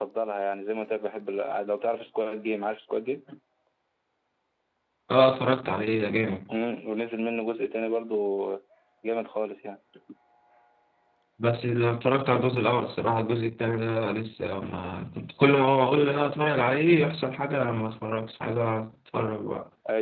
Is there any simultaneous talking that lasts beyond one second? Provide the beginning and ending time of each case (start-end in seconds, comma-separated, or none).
none